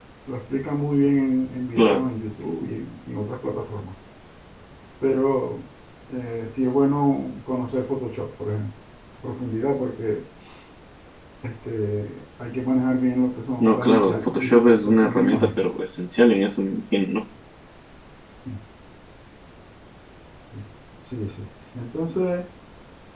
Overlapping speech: Yes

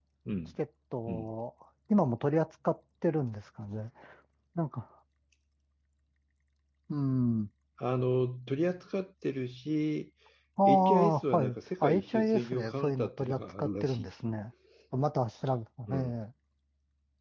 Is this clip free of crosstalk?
No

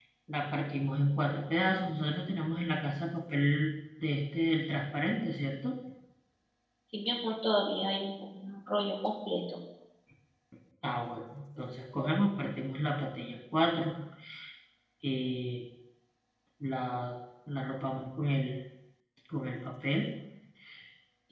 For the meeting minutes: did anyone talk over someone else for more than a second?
No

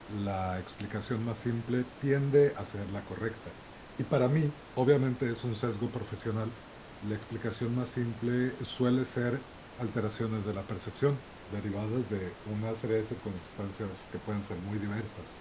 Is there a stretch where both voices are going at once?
No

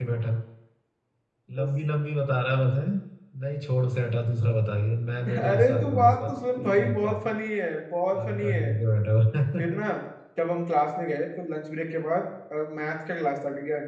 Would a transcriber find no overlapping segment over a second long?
No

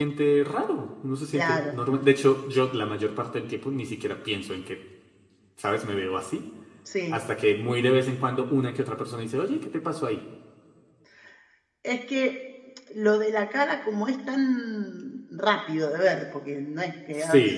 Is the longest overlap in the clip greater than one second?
No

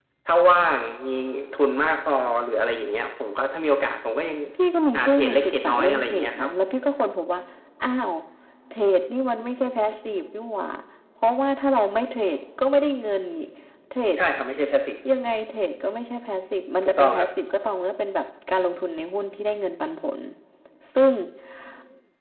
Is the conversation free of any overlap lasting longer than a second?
No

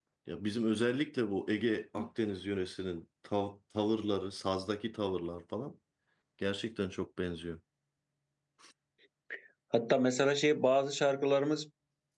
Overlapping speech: No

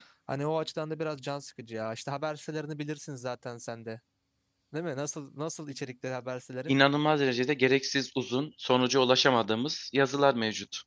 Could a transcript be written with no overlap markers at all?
Yes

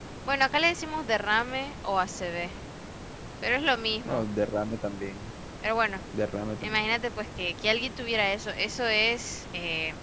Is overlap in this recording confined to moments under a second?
Yes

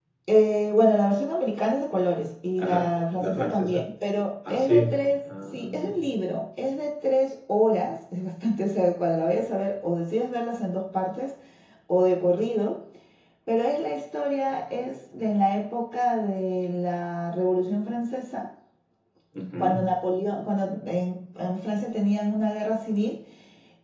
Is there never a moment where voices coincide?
No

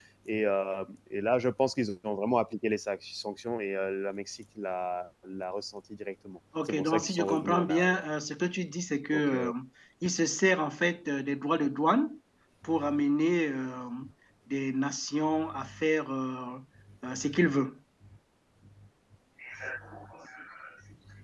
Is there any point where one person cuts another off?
Yes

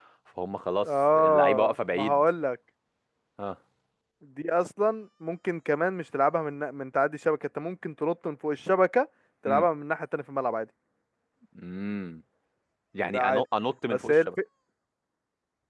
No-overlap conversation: No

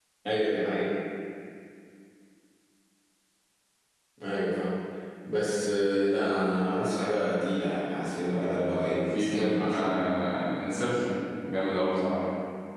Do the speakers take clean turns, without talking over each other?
No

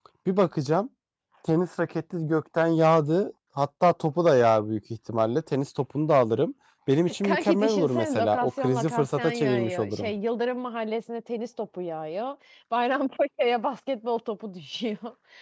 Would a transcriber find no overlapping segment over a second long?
No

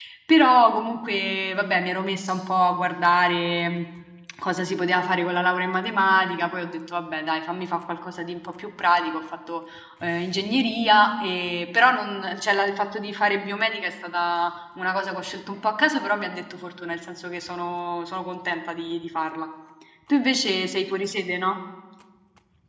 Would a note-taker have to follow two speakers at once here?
No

